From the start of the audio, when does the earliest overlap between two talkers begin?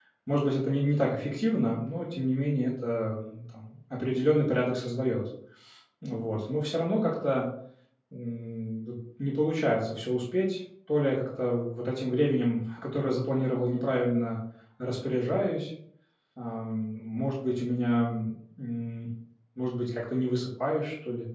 none

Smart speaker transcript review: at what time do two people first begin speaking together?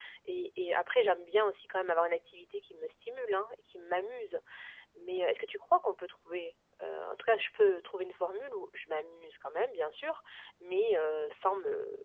none

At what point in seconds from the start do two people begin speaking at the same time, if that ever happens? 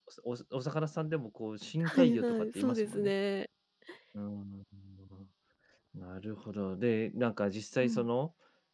1.8 s

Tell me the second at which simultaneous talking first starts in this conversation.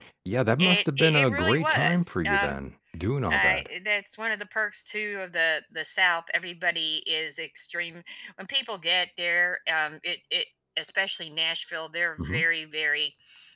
0.6 s

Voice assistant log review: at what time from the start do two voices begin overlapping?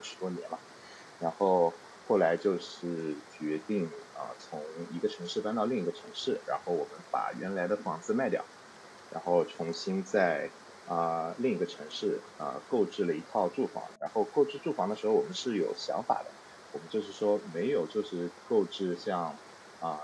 none

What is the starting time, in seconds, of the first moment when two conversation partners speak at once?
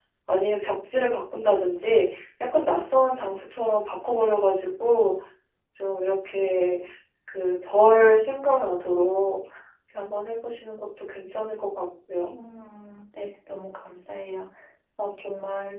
none

